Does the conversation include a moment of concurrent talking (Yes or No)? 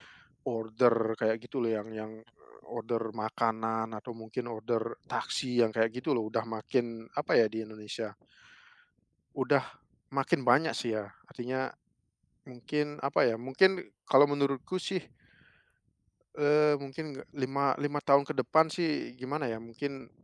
No